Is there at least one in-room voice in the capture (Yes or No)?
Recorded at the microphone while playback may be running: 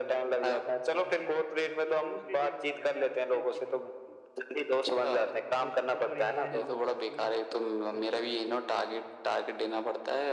Yes